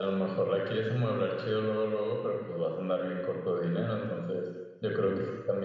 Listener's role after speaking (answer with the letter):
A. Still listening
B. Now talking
A